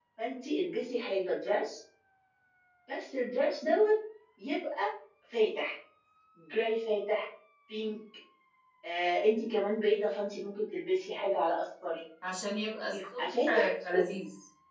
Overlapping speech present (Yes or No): Yes